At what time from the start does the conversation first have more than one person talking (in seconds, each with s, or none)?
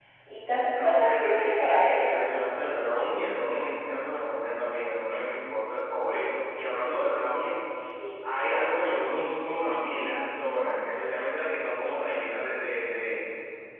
0.7 s